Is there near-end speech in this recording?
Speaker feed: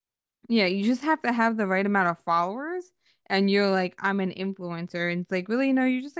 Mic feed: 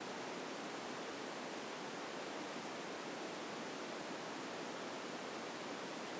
No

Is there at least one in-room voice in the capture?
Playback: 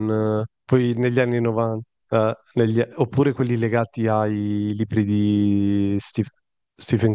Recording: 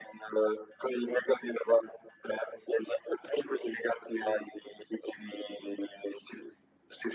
No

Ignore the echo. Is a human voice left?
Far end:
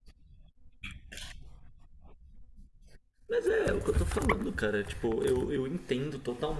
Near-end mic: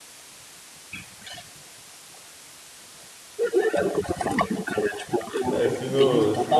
Yes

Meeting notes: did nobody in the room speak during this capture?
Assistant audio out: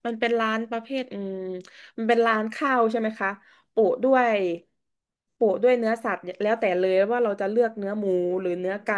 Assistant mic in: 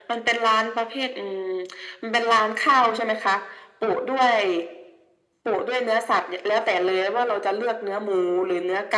Yes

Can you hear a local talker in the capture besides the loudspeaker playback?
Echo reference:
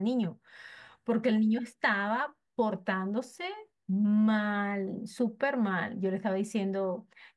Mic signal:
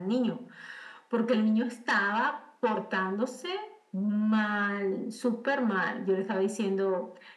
No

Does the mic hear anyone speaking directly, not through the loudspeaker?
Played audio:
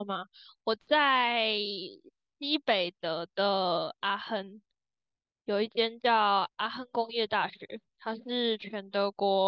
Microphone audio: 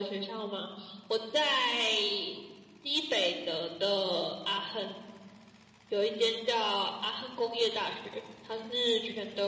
No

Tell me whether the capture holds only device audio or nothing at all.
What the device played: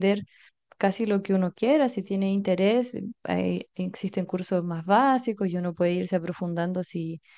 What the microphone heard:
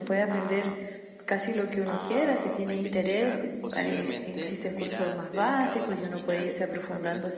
No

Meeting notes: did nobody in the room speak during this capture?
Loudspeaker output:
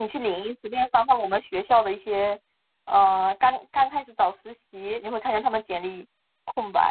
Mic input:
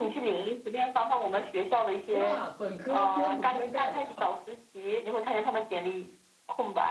No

